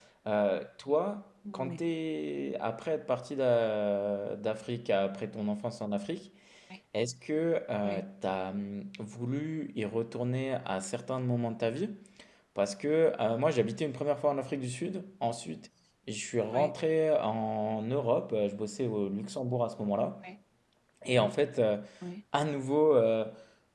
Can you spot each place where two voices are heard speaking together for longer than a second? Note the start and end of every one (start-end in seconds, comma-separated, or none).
none